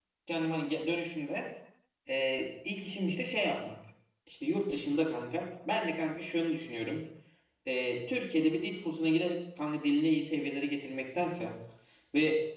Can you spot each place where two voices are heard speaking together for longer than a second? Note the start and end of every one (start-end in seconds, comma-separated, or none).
none